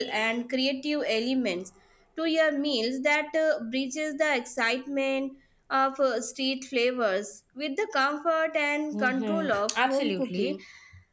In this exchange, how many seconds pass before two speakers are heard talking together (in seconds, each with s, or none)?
8.9 s